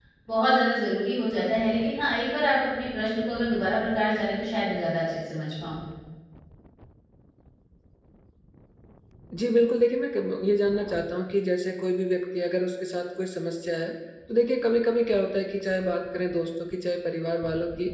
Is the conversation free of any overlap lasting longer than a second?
Yes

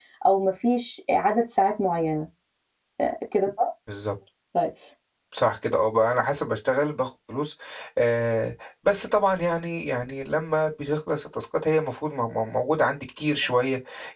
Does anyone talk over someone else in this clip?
No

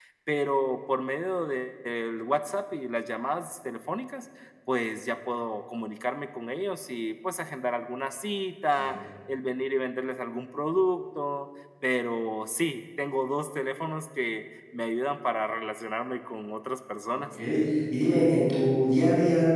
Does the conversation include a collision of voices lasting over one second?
No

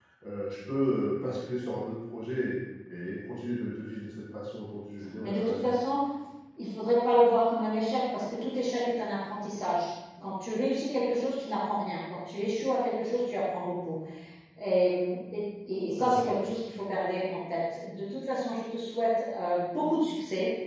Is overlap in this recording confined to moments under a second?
Yes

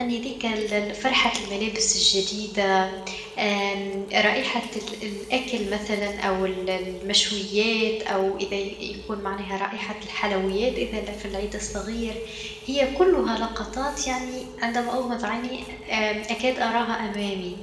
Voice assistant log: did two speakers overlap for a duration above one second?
No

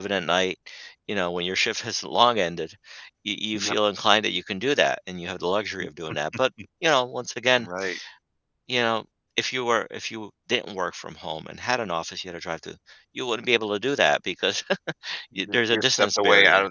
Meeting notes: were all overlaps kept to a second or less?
No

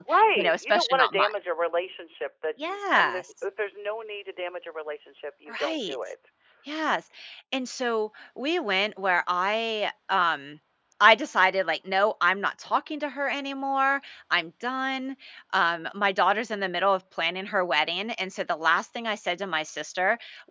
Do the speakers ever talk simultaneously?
Yes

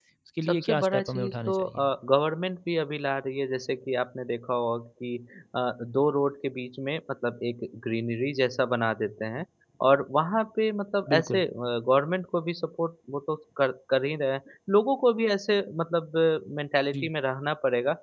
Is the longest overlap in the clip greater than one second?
Yes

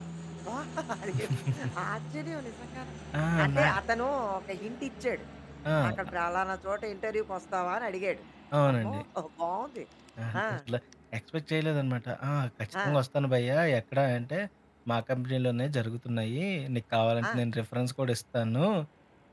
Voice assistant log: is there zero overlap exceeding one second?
Yes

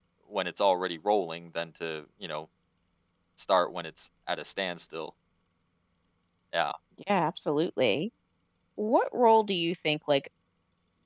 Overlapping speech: No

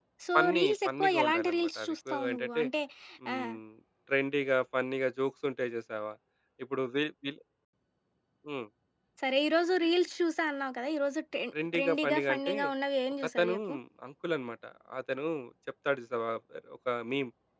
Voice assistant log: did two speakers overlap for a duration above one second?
Yes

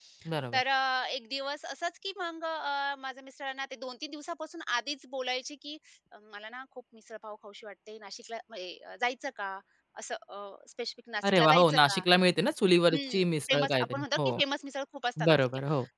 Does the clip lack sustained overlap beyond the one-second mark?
No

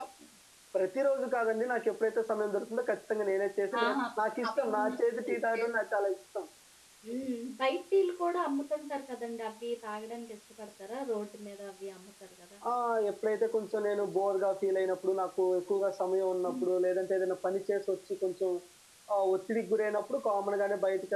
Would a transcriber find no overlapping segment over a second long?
No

